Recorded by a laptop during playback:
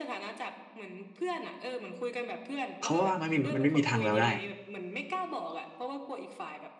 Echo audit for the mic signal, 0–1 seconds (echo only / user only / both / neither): echo only